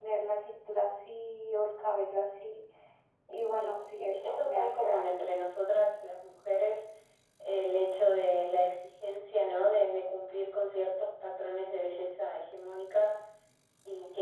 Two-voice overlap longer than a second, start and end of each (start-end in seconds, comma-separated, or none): 3.6-5.2